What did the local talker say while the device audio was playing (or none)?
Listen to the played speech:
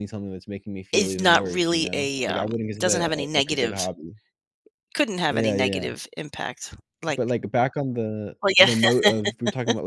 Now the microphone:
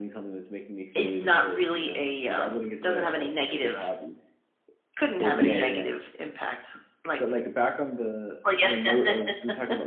Thank you.